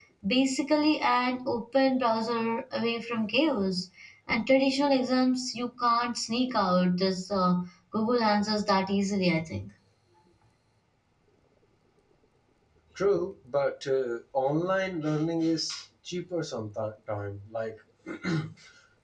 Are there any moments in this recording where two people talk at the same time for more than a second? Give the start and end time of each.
none

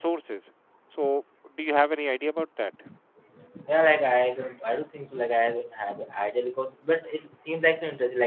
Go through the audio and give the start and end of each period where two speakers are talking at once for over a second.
none

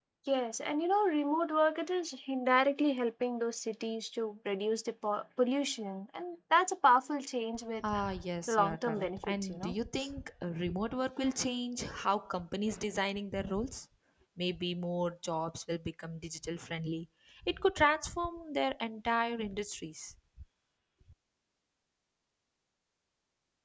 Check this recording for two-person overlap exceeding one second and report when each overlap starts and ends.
8.5-9.7

